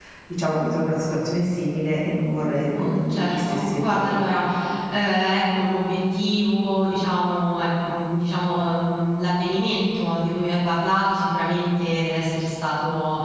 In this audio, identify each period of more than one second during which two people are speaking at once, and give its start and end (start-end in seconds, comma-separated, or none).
2.8-4.2